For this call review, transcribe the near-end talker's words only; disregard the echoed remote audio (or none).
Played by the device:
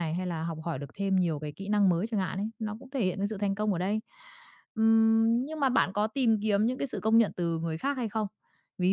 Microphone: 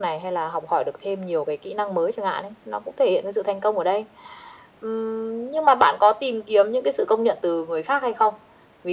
none